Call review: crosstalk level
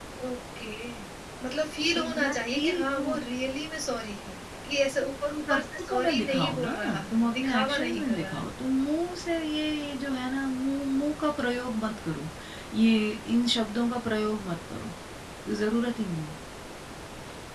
present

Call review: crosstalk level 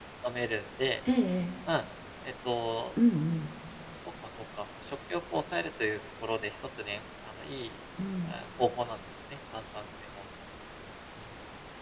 none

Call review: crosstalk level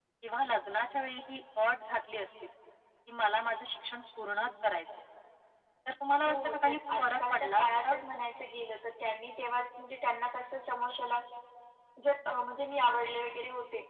present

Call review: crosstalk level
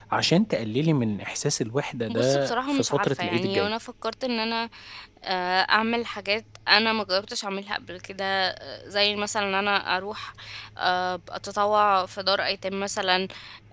present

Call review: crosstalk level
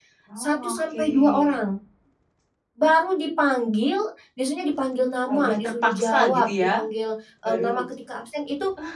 present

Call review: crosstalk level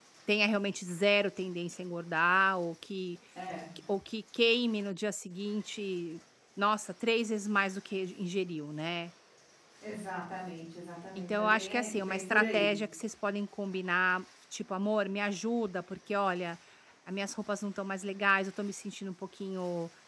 present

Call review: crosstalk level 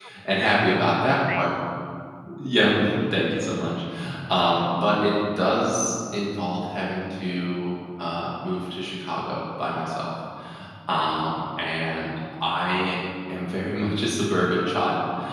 present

